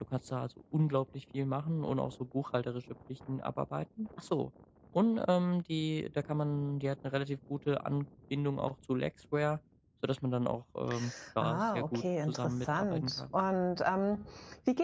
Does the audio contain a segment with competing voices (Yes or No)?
Yes